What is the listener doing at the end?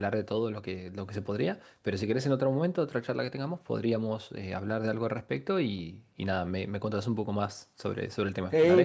taking over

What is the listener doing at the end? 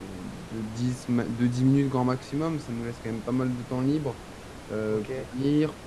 listening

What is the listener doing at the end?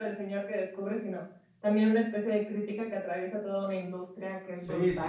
taking over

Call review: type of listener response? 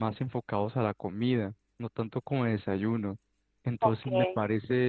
listening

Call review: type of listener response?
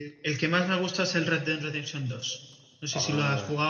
taking over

